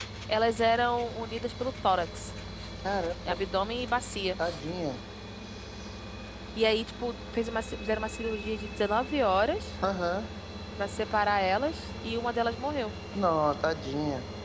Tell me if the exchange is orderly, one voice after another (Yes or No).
Yes